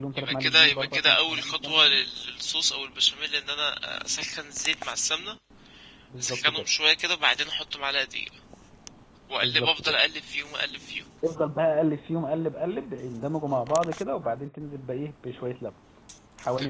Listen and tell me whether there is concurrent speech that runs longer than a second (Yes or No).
Yes